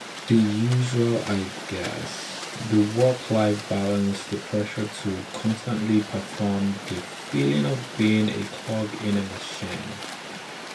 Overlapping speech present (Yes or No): No